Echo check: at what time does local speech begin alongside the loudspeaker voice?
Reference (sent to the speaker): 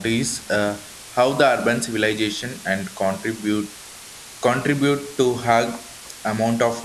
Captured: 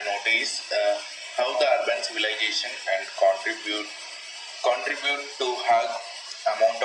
none

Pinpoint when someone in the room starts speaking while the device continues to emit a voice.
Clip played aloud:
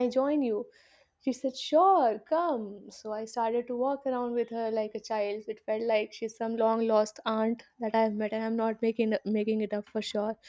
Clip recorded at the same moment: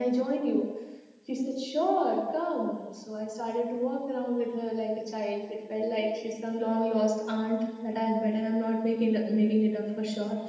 none

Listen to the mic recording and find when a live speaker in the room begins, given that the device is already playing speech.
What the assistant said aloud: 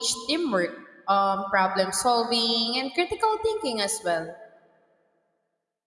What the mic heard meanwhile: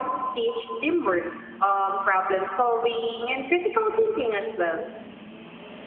none

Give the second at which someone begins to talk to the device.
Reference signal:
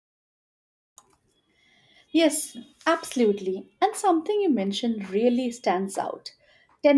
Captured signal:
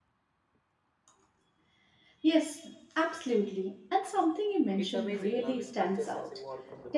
4.8 s

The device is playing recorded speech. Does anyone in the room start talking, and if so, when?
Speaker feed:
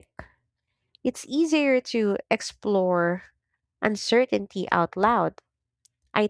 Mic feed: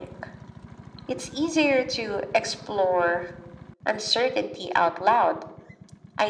none

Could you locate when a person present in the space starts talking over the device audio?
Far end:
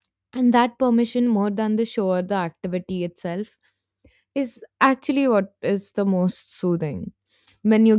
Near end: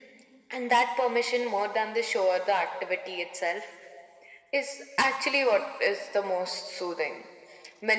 none

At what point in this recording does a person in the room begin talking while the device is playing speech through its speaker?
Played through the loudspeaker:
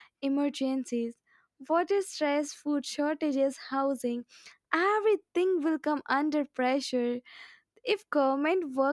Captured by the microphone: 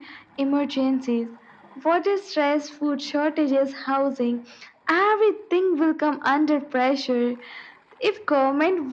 none

